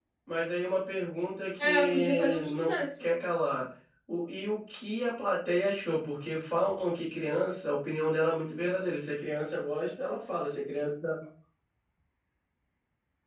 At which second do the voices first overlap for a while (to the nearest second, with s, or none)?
2 s